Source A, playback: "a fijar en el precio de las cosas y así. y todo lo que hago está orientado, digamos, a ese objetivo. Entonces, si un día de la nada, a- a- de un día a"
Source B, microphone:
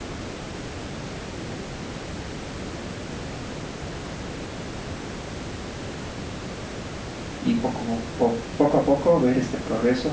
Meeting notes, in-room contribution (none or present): present